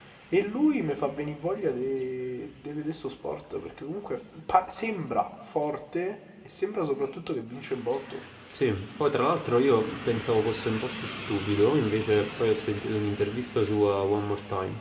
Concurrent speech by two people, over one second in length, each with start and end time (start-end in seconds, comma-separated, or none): none